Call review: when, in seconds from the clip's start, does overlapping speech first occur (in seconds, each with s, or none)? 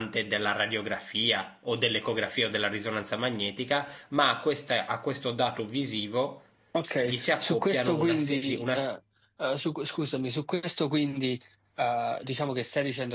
7.0 s